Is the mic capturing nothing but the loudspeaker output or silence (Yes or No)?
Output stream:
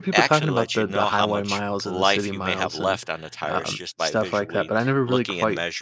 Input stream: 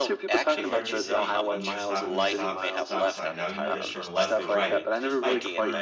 No